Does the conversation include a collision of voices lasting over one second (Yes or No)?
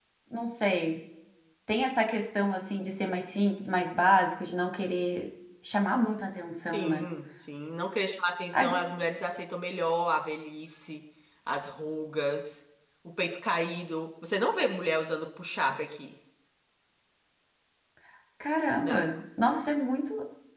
No